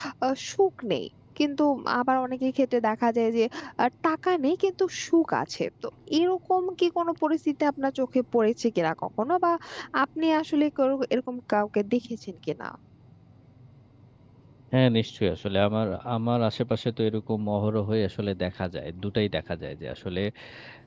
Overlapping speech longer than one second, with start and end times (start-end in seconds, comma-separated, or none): none